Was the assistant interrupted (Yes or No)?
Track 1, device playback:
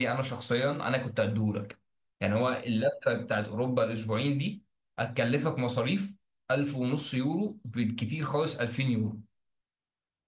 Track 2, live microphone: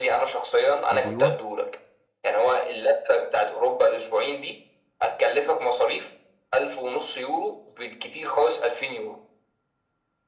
Yes